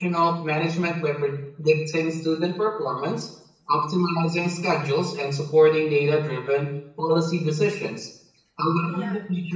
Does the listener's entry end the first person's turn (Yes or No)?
No